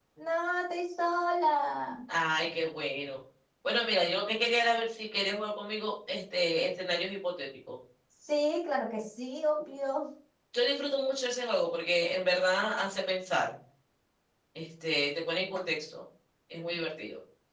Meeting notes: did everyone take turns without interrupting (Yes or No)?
Yes